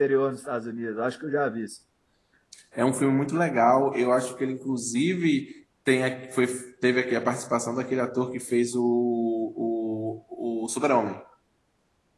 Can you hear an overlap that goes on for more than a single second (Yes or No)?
No